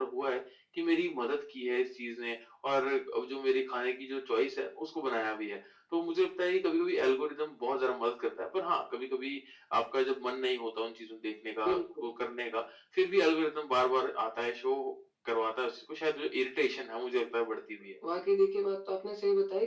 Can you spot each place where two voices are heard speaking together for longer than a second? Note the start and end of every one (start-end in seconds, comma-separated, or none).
none